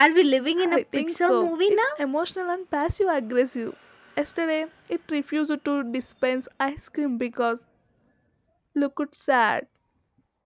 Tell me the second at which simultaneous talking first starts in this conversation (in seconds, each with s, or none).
0.6 s